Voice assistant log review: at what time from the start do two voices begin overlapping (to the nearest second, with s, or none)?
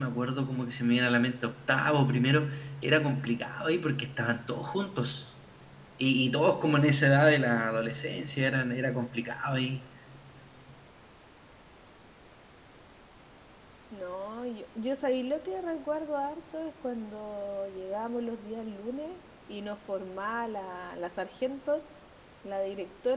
none